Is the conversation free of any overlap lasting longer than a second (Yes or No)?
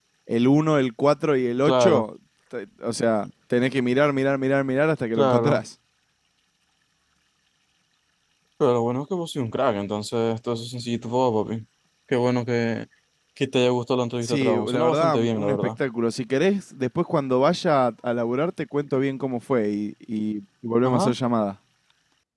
No